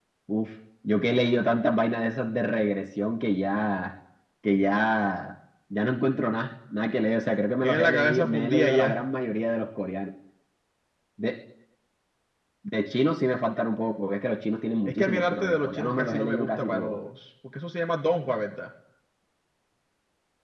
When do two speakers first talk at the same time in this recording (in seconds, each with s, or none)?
7.6 s